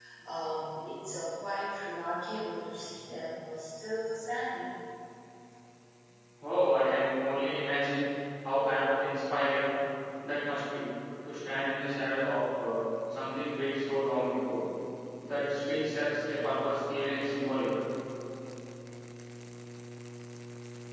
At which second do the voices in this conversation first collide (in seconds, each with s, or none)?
none